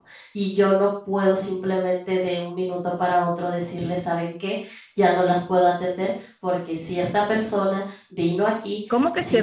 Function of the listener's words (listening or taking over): taking over